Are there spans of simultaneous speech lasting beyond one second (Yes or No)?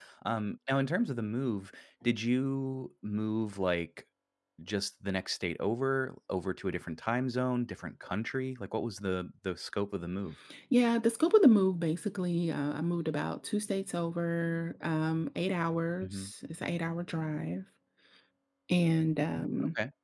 No